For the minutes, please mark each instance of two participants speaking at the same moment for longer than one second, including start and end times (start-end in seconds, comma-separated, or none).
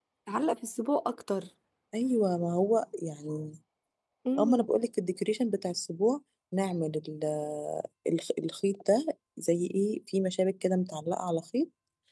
none